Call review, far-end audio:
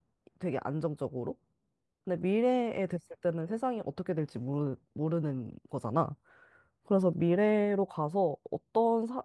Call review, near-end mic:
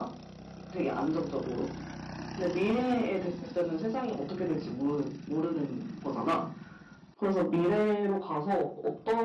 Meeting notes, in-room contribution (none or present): none